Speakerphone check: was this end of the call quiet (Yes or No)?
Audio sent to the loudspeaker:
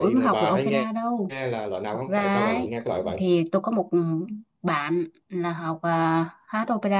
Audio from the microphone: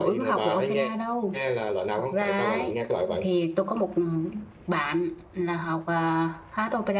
Yes